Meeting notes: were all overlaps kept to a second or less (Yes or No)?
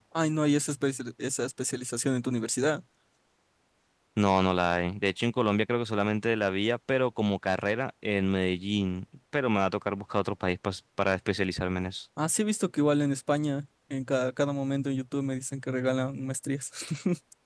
Yes